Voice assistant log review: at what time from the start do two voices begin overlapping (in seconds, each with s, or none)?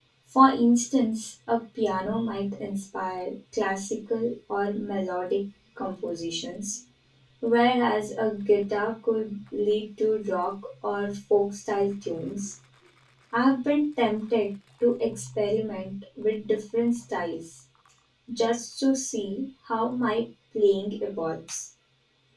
none